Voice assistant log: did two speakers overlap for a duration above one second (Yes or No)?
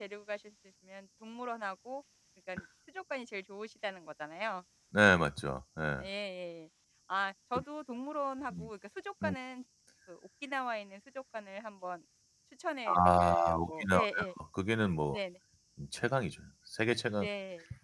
Yes